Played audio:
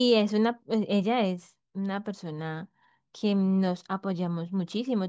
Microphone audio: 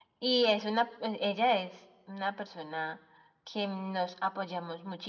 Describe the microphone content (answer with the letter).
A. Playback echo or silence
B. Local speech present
A